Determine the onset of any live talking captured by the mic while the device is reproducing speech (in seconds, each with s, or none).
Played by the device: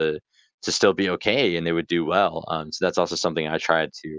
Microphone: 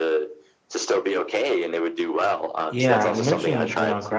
2.7 s